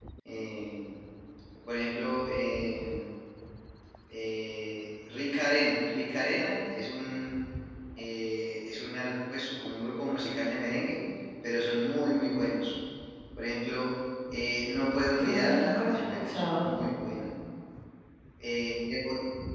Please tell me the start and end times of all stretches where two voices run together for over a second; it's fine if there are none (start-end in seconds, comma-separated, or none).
15.2-16.7